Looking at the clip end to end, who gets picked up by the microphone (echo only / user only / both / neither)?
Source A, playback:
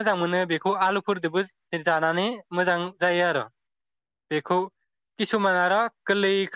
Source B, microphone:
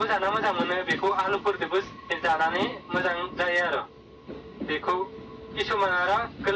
echo only